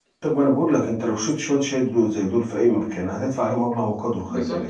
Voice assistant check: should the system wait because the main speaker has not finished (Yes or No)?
No